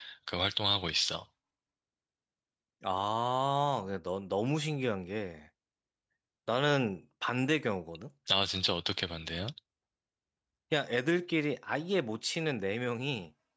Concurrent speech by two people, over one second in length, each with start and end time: none

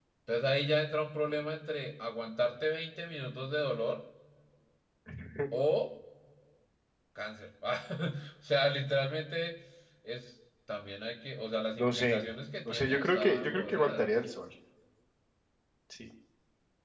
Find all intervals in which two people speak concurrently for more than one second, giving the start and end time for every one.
12.7-14.1

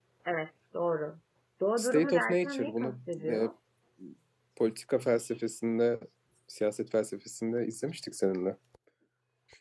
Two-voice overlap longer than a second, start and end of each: 1.8-3.5

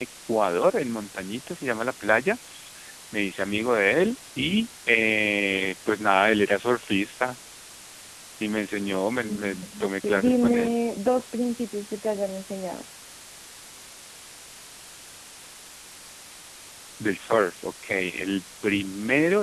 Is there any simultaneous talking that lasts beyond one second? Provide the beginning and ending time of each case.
9.2-10.8

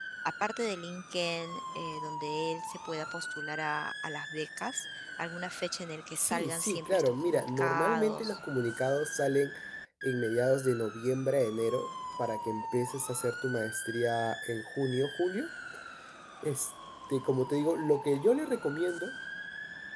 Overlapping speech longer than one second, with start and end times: 6.2-8.4

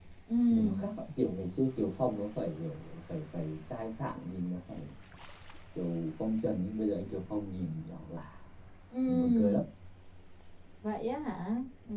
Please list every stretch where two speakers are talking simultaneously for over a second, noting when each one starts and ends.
none

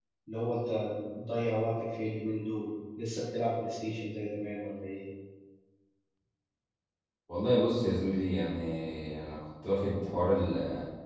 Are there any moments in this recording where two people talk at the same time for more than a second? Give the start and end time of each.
none

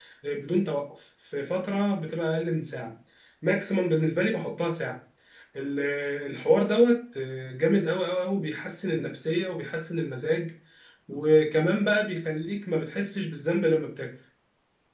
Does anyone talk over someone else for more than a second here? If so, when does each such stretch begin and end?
none

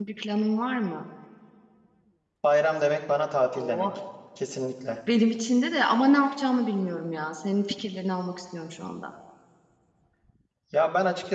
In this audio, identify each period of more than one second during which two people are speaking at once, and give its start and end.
none

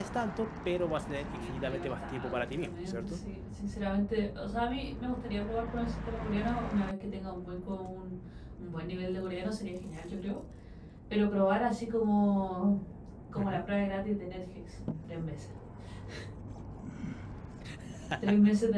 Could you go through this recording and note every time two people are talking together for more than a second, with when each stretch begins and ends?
1.2-3.2

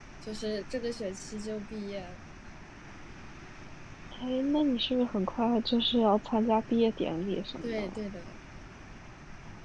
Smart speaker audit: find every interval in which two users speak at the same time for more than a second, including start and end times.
none

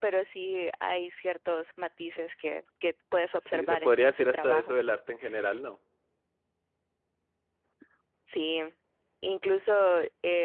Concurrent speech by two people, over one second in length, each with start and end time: 3.4-4.8

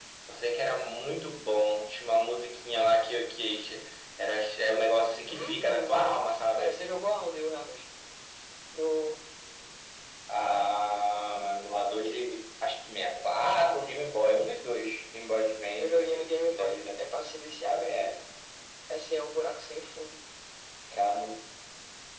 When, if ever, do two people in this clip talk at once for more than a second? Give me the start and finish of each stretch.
5.3-6.8, 15.8-17.0

